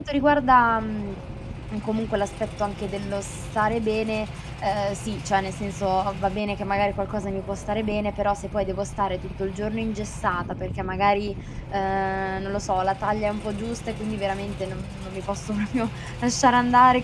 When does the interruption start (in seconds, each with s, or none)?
none